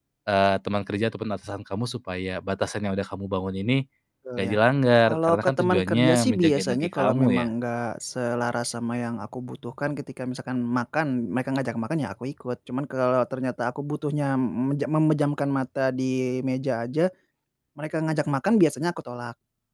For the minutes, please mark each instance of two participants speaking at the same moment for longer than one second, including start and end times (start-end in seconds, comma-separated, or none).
5.1-7.5